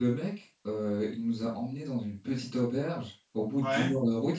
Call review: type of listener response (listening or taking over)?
listening